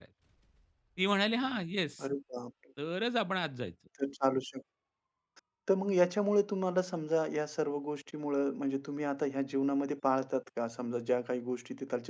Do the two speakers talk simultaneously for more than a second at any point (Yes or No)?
No